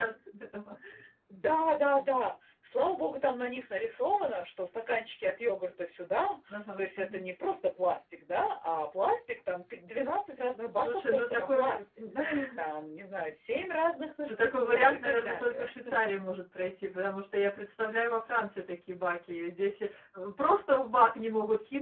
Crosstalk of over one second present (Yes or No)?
Yes